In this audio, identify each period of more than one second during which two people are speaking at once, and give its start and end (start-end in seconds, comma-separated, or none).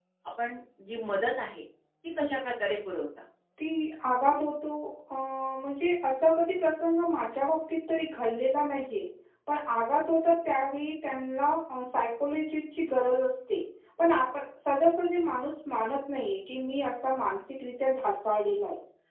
none